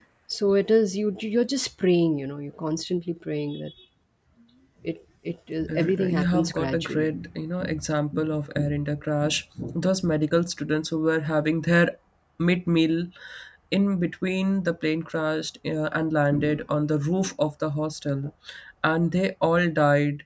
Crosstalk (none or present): present